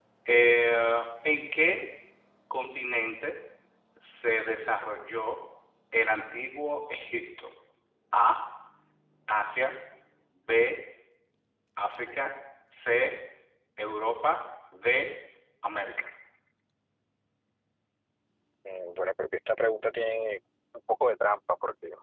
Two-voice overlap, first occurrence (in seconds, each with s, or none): none